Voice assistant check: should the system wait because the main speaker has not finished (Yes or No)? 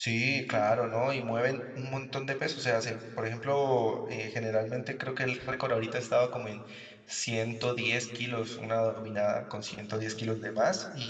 Yes